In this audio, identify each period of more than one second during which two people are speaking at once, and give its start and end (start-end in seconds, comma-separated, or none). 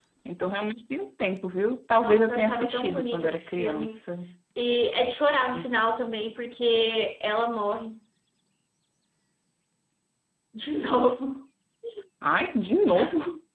1.9-4.0